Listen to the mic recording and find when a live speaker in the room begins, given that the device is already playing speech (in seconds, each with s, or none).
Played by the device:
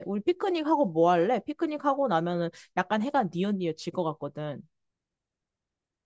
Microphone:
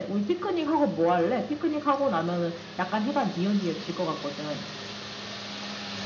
none